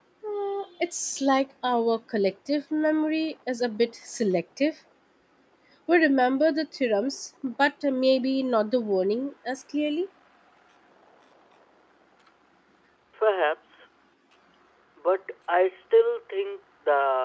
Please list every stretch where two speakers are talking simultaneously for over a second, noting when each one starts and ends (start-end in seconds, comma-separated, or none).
none